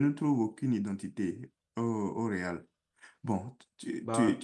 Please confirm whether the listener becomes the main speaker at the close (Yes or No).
No